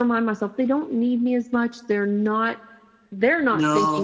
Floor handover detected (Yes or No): No